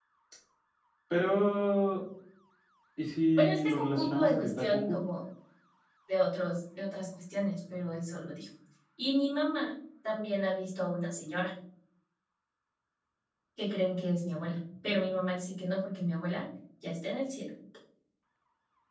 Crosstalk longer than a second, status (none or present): present